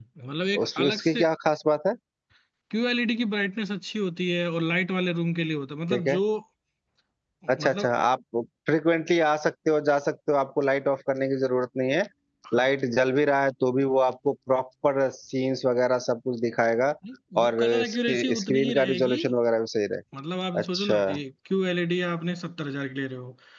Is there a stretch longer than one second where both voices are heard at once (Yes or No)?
Yes